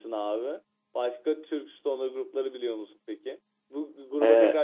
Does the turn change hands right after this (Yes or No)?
No